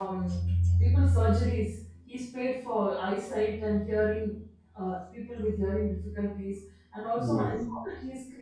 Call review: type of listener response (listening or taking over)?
listening